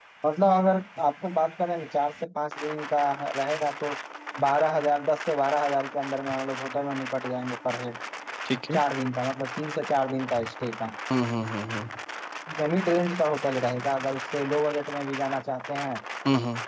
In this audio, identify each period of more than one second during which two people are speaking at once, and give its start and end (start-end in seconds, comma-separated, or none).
none